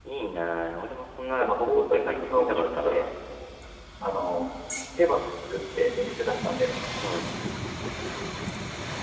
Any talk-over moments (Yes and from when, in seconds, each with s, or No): Yes, from 1.4 s